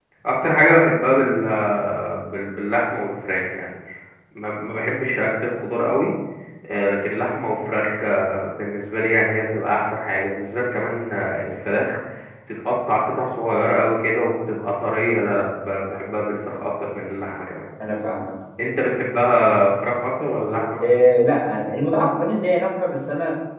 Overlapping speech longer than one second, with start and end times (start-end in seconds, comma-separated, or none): none